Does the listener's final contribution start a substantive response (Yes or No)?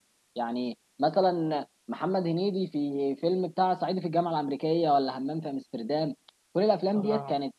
No